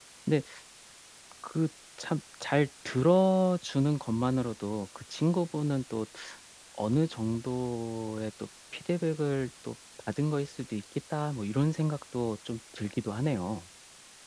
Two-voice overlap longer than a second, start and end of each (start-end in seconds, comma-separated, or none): none